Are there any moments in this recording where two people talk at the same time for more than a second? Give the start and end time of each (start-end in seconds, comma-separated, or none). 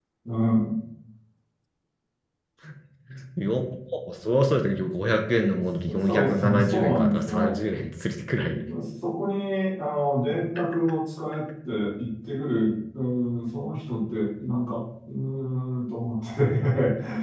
5.9-7.6